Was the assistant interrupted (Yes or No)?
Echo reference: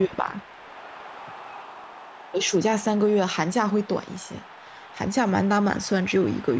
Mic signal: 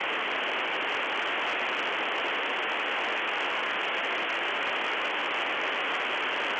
No